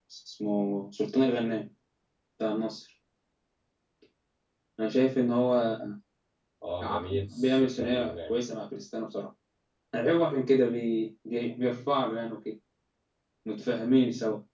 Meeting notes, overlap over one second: present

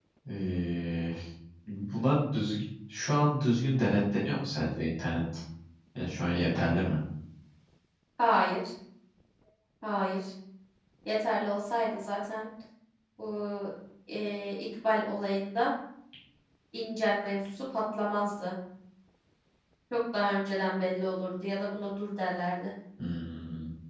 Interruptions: none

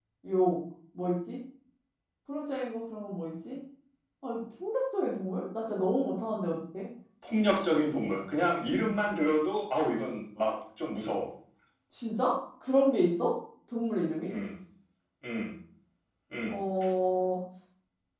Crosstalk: none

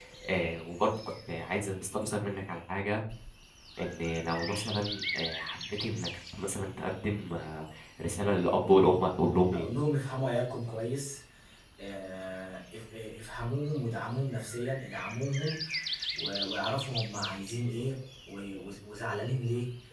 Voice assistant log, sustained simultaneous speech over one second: none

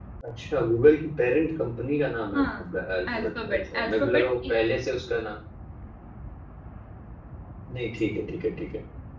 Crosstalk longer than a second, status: present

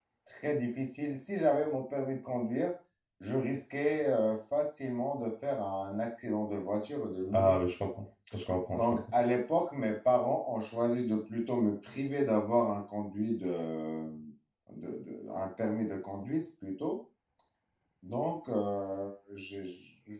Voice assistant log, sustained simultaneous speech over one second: none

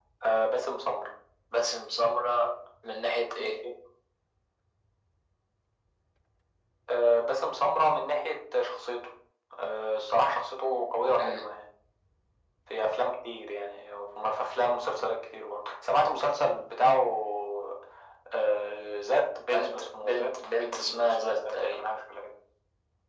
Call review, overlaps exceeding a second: present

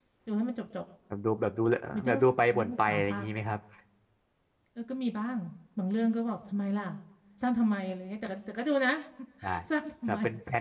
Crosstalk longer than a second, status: present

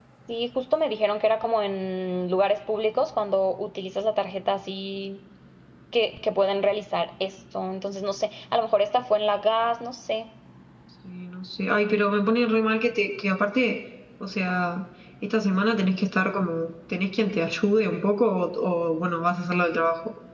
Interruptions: none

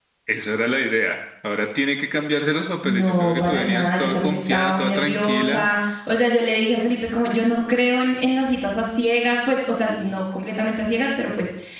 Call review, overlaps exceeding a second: present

